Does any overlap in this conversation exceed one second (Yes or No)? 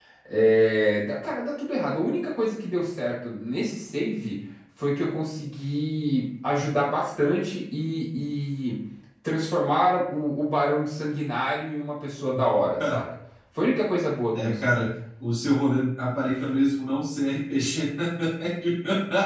No